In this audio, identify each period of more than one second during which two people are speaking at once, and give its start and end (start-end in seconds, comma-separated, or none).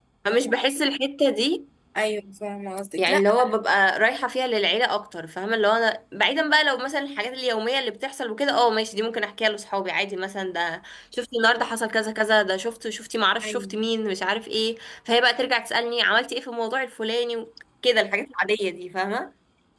none